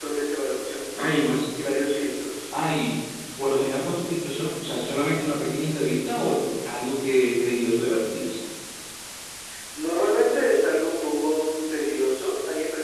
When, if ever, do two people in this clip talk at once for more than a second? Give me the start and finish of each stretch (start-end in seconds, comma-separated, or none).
none